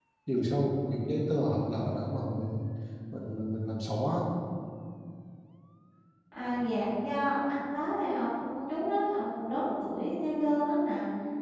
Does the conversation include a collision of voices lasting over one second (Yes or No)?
No